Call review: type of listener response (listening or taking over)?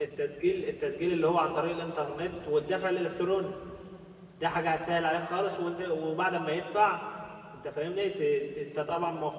listening